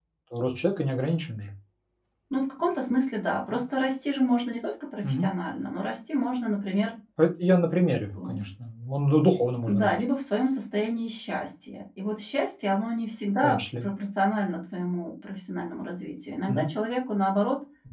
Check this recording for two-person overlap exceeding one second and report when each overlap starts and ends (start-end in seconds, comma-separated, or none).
none